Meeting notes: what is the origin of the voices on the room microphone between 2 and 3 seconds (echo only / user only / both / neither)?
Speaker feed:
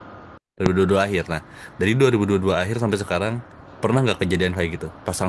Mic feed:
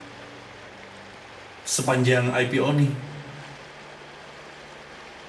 user only